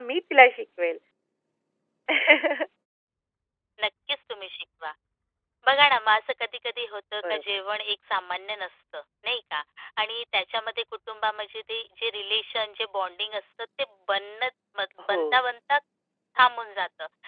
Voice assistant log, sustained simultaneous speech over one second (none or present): none